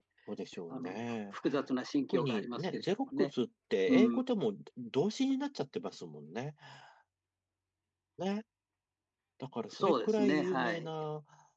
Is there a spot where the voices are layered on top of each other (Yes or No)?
Yes